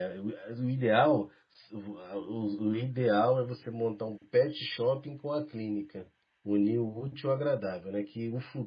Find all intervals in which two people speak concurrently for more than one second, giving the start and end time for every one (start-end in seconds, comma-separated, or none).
none